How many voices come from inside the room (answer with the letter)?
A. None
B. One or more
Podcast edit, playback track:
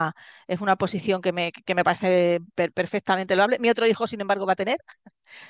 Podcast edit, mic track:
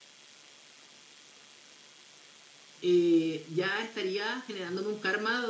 B